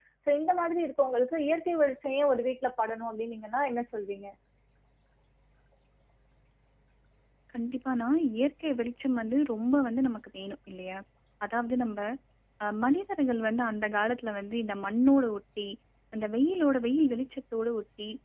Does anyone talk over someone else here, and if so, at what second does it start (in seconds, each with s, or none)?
none